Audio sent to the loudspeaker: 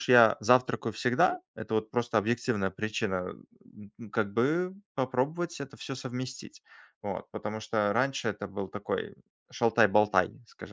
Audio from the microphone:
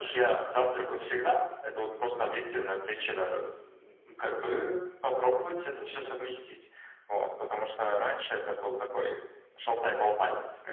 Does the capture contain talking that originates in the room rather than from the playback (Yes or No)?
Yes